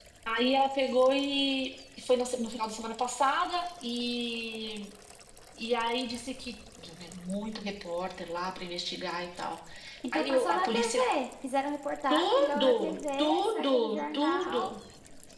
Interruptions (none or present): present